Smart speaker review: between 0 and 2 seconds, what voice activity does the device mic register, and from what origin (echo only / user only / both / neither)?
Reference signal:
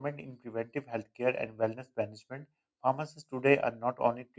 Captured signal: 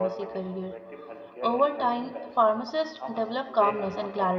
both